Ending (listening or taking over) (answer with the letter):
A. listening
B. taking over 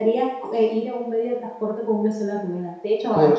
A